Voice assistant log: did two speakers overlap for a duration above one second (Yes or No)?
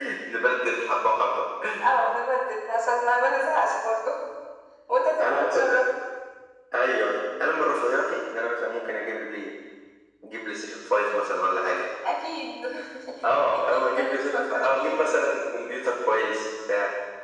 Yes